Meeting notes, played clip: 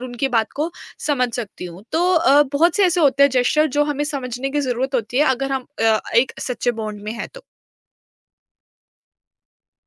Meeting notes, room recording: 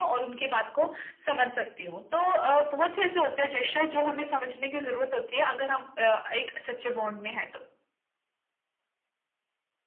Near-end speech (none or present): none